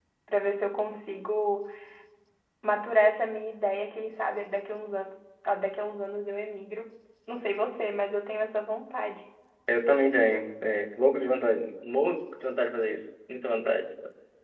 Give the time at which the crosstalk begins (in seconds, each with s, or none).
none